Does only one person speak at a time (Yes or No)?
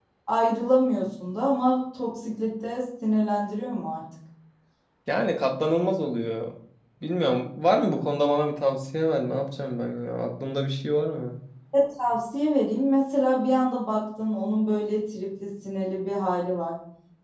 Yes